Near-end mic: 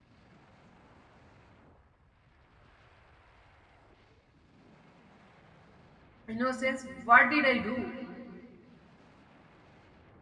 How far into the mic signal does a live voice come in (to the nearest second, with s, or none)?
6 s